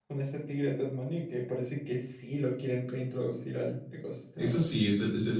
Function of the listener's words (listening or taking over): taking over